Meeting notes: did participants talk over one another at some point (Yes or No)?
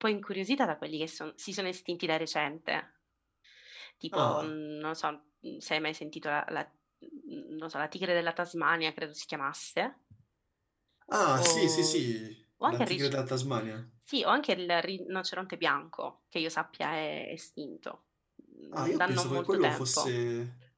Yes